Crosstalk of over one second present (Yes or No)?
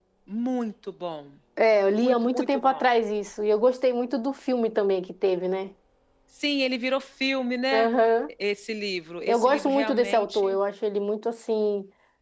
Yes